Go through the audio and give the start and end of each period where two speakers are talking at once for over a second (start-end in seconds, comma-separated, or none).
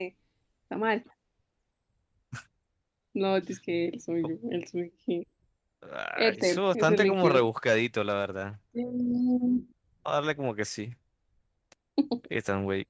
6.2-7.4